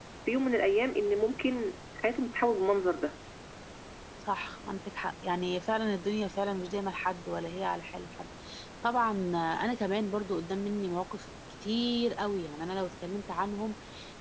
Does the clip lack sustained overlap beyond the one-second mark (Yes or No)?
Yes